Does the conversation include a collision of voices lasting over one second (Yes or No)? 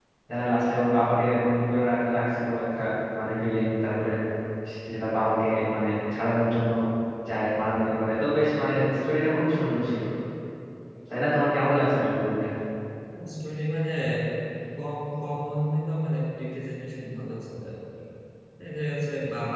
No